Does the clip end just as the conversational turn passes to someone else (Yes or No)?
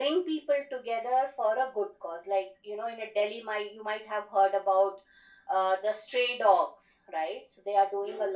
No